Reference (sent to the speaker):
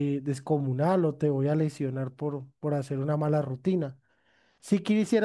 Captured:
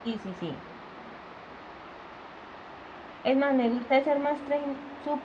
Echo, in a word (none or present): none